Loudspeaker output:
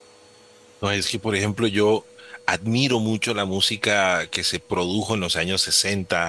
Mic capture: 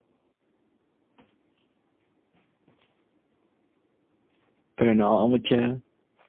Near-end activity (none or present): present